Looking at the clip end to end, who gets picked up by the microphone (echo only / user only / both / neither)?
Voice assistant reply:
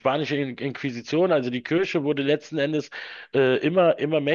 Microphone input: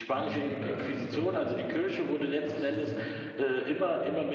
both